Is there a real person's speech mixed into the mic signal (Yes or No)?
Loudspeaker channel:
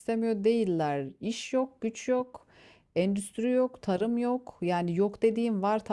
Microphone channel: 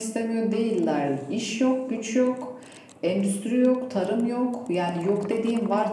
No